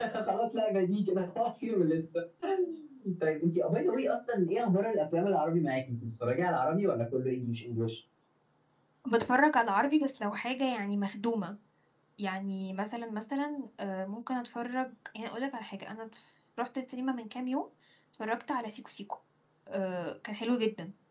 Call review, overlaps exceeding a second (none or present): none